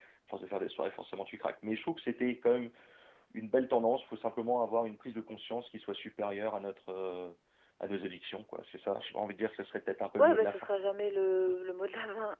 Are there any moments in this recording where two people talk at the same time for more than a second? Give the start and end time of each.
none

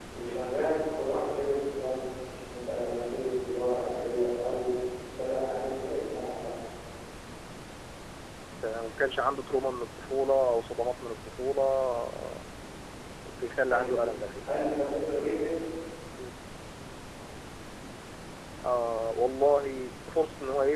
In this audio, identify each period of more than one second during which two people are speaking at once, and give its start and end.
none

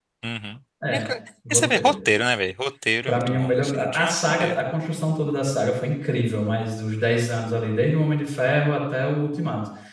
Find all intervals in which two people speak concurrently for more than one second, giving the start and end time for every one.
3.1-4.6

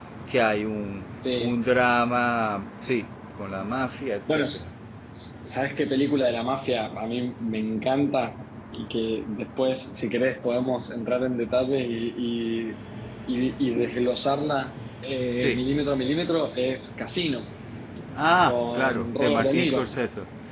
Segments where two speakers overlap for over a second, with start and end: 18.4-19.9

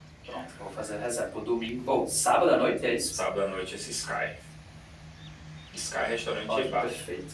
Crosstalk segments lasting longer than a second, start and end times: none

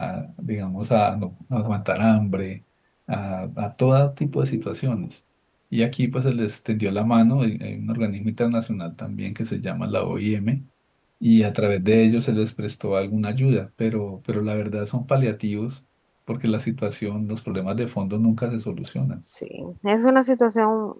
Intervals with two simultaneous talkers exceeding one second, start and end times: none

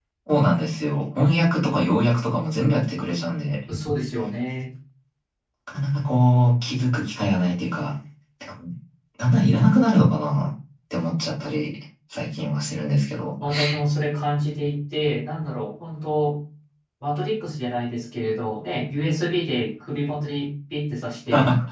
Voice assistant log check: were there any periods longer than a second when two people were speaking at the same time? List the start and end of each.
none

